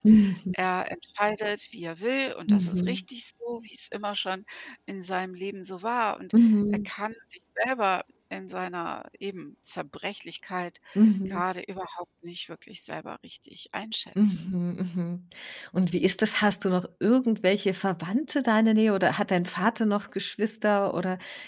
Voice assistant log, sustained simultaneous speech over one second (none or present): none